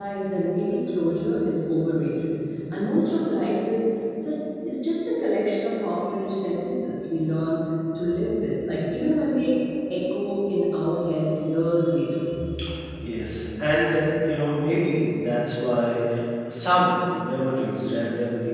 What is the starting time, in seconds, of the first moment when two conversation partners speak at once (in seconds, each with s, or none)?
none